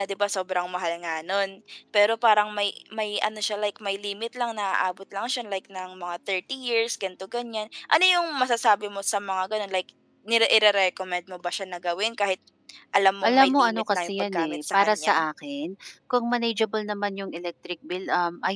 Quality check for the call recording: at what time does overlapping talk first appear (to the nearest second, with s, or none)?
13 s